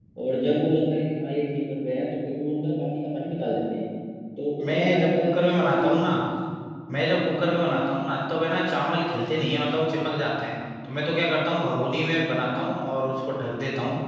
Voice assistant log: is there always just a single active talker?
No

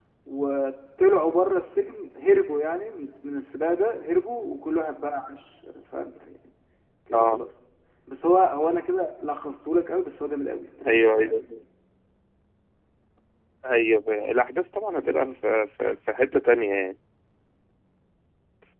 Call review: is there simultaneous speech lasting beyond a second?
No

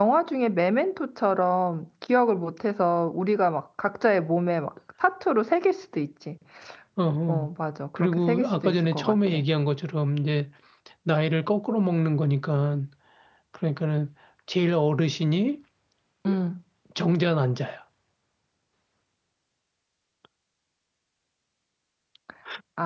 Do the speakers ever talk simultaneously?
Yes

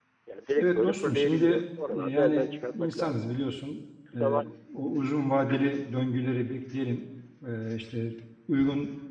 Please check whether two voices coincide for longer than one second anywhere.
Yes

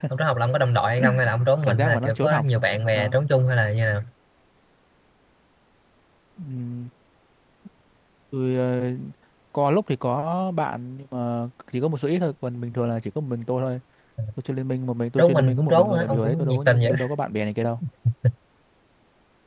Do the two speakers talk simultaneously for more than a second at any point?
Yes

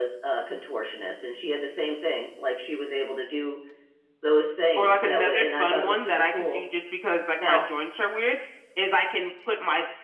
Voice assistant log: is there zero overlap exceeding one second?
No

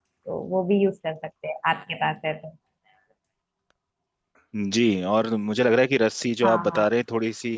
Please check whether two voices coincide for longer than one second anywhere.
No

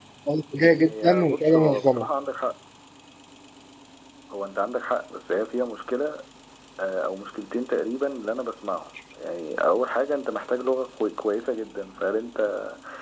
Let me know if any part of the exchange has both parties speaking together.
Yes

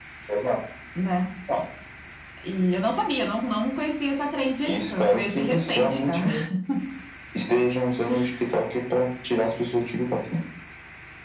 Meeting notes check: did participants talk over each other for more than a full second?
Yes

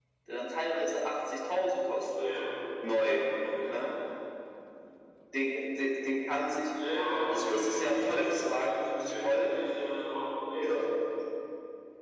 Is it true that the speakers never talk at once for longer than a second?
No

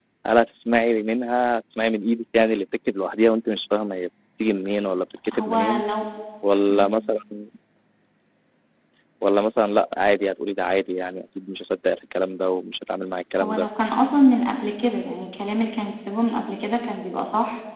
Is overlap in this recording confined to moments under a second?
Yes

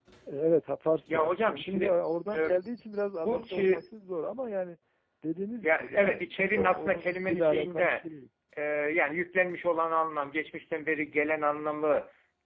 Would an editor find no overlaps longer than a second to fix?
No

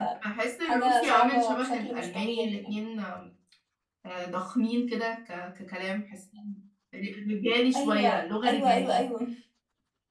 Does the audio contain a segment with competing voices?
Yes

